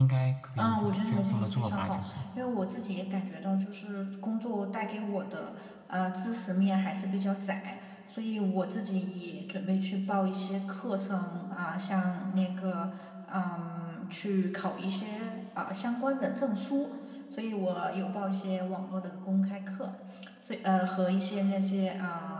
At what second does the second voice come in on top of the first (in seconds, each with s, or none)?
0.6 s